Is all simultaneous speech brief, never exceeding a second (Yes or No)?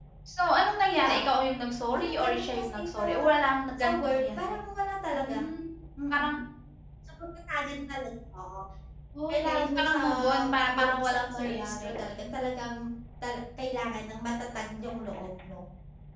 No